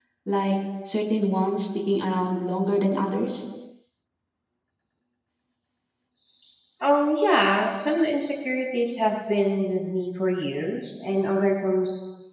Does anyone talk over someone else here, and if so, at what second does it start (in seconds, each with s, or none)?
none